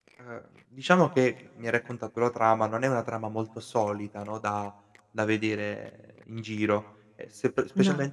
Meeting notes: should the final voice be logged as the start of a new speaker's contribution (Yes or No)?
No